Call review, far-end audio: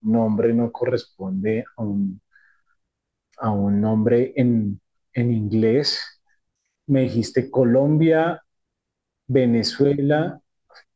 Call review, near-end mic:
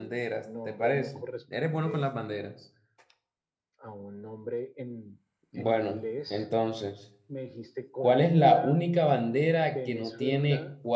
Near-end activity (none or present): present